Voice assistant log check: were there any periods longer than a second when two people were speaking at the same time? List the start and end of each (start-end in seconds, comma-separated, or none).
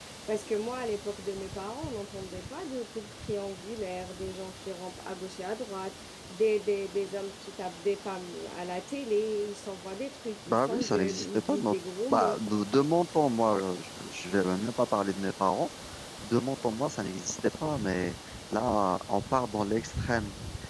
10.5-11.7